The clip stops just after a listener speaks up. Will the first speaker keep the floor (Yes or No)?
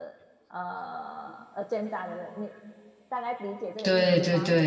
No